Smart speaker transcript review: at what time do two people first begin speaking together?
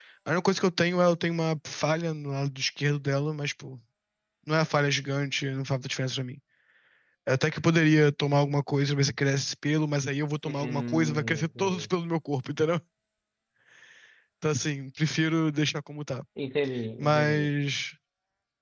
10 s

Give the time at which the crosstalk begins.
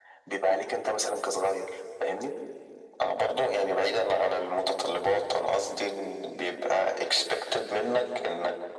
none

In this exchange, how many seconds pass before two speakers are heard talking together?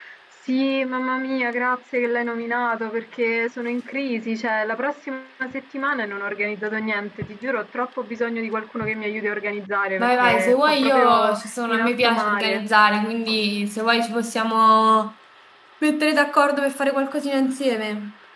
10 s

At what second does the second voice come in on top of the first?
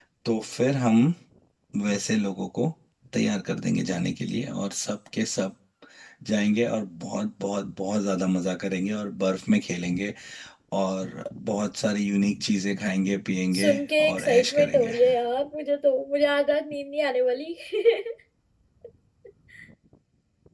14 s

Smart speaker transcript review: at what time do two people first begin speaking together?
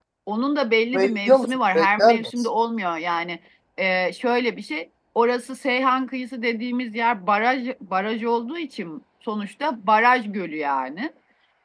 1 s

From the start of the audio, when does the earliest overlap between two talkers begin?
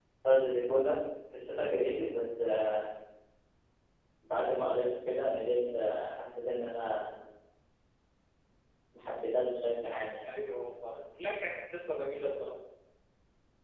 none

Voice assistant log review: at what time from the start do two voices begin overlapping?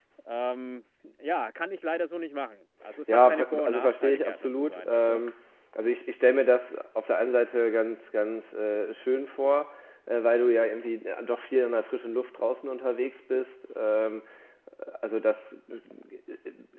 3 s

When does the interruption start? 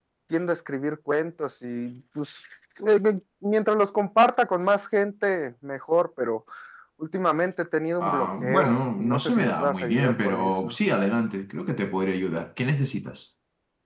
8 s

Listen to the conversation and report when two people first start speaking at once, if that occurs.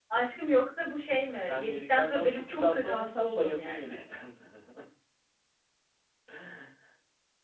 1 s

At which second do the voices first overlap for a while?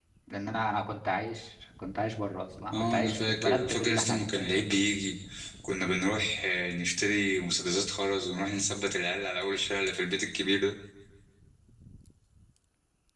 3 s

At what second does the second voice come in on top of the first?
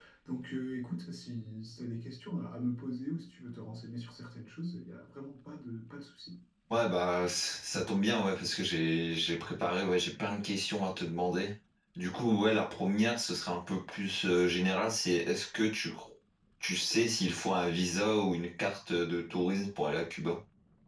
none

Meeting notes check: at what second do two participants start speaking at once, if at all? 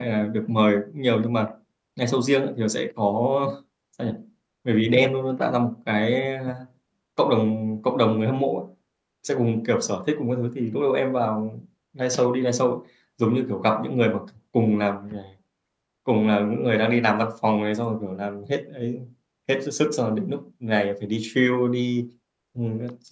none

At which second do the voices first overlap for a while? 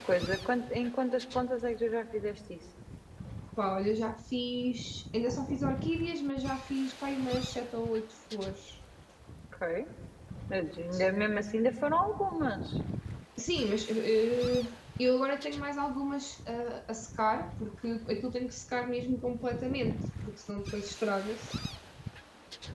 none

